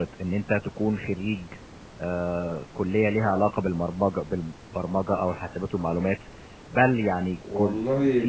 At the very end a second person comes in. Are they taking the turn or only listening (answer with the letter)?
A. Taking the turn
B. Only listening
B